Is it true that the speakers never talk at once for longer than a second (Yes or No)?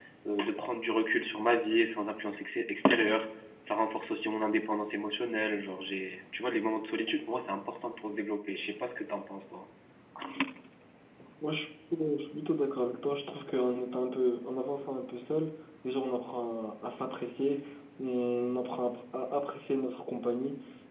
Yes